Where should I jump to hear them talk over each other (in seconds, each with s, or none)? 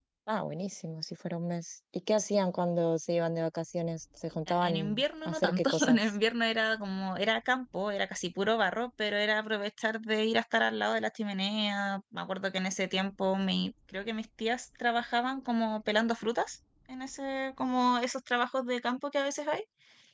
4.5 s